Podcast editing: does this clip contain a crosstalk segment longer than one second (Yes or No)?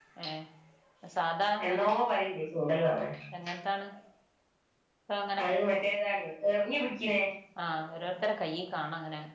No